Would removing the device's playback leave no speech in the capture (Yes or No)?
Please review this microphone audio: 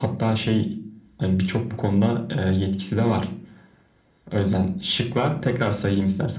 Yes